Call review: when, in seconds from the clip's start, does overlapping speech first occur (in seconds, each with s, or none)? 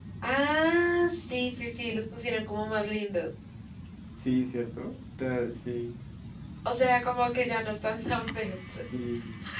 none